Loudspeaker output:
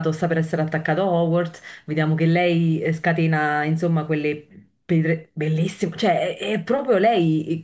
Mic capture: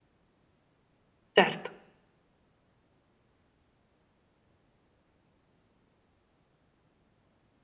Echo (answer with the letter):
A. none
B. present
A